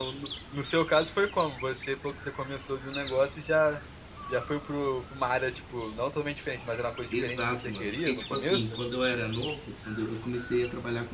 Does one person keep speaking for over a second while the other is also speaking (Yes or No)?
Yes